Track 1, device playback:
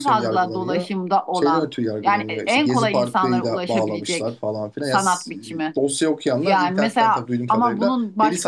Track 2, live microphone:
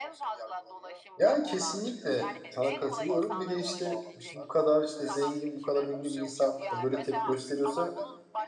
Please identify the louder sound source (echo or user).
user